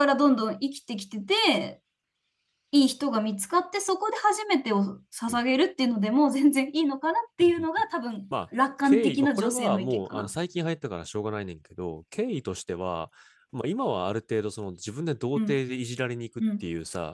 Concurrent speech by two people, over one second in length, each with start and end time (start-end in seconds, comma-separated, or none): 8.8-10.3